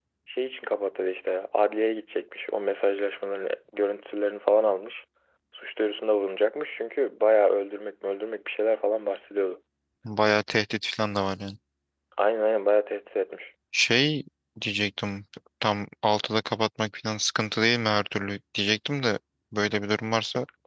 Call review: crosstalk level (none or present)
none